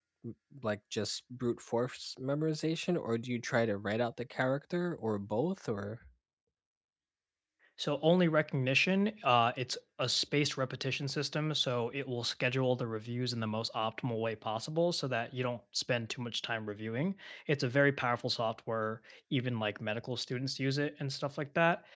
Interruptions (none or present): none